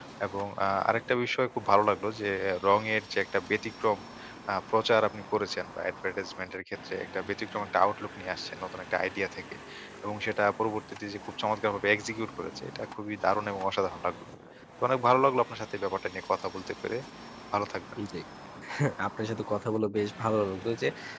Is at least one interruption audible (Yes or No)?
No